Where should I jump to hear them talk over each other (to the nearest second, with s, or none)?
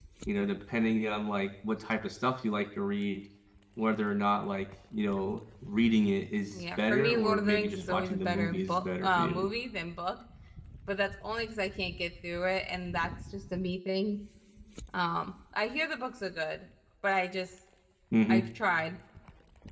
7 s